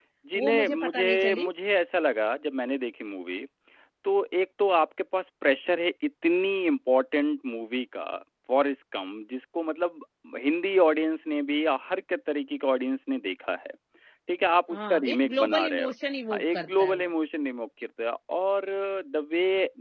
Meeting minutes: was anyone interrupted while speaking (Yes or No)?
Yes